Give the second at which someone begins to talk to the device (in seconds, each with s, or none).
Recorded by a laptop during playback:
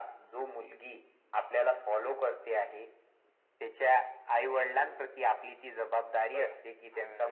6.3 s